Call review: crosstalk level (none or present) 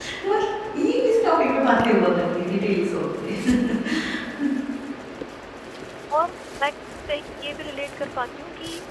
none